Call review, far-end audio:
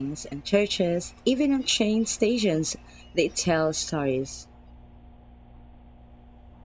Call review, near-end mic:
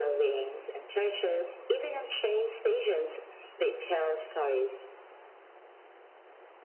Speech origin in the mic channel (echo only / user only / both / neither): echo only